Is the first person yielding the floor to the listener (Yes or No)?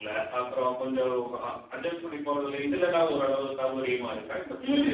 Yes